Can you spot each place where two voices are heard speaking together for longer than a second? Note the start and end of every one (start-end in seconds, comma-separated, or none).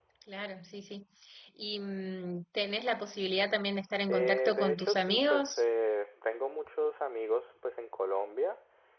4.1-5.6